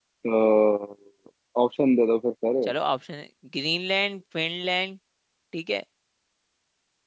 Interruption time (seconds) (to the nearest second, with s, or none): none